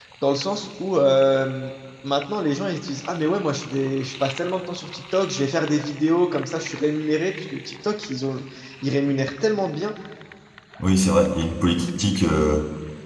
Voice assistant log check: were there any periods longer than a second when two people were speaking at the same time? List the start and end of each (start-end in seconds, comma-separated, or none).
none